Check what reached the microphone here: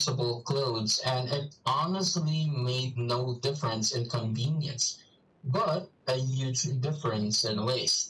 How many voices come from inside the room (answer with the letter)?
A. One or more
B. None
B